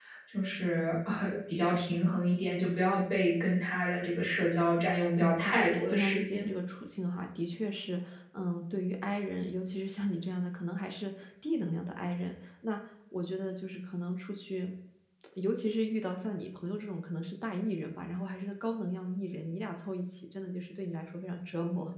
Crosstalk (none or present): present